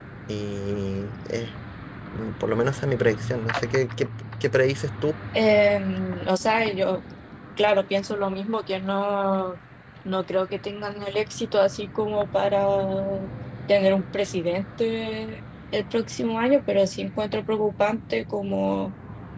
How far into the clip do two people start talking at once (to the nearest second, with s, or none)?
none